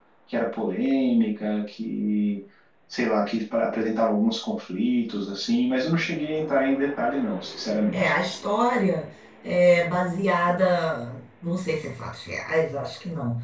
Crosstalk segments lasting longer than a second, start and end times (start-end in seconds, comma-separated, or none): none